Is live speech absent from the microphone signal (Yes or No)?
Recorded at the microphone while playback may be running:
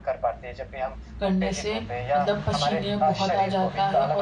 No